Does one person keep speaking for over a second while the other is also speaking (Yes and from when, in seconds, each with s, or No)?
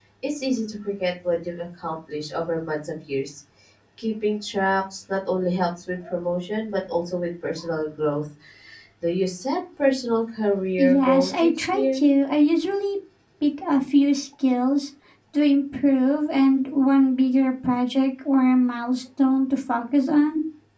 Yes, from 10.8 s